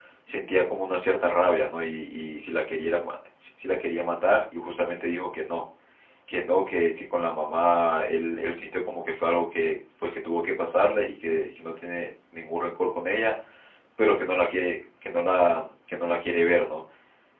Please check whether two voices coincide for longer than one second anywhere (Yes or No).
No